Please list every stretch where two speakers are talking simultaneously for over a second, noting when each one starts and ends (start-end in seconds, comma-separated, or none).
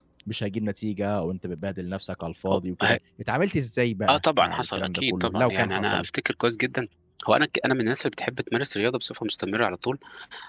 4.1-6.1